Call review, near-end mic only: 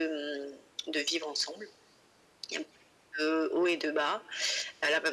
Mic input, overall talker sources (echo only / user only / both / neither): echo only